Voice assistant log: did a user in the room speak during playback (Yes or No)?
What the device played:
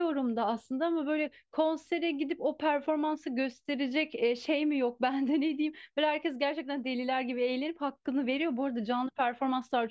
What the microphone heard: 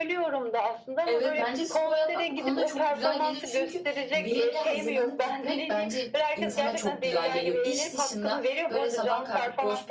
Yes